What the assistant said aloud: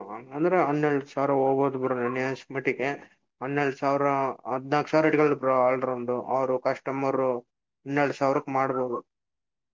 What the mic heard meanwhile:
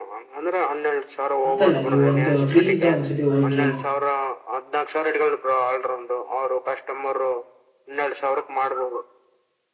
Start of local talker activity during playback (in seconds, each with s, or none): 1.4 s